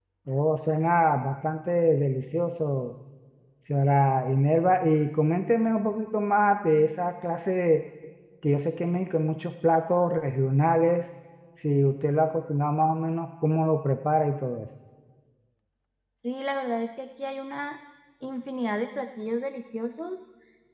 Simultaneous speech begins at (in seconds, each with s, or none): none